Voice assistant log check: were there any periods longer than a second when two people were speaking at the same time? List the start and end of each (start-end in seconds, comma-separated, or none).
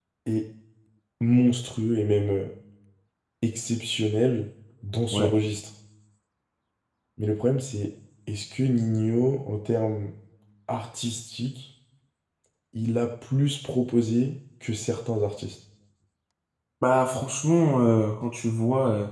none